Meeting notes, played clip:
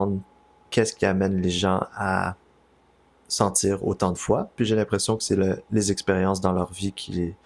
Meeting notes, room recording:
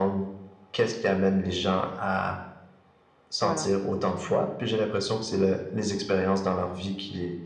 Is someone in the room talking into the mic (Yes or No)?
Yes